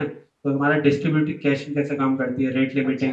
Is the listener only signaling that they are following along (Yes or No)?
No